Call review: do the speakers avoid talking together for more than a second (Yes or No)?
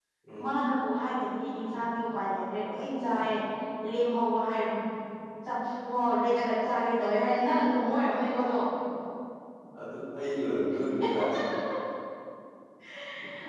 Yes